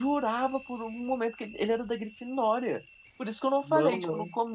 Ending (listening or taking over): listening